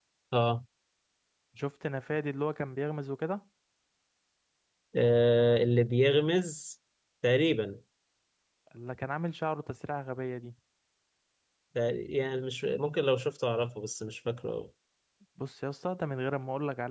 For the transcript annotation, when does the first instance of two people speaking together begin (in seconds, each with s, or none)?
none